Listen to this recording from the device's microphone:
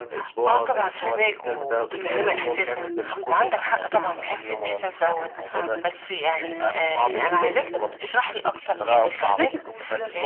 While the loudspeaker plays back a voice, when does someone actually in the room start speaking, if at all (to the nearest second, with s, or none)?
2 s